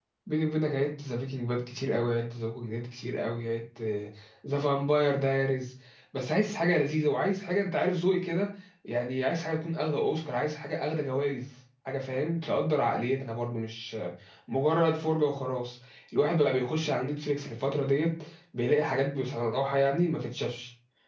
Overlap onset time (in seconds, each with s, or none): none